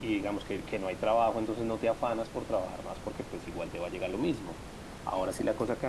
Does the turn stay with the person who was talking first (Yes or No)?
Yes